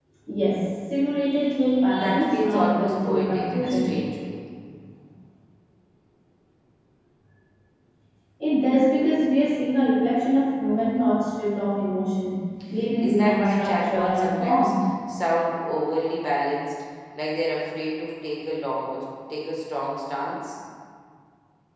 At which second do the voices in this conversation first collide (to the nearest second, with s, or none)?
2 s